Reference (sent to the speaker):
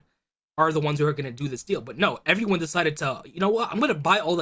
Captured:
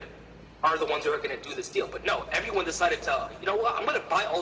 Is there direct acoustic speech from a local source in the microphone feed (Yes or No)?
No